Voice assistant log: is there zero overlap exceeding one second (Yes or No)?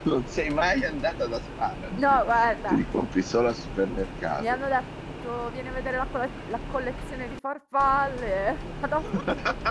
Yes